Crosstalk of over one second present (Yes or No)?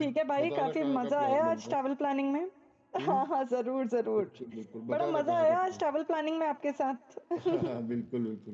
Yes